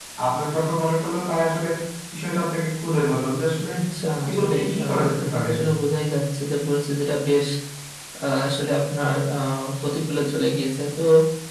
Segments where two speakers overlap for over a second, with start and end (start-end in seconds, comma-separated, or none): 4.3-5.5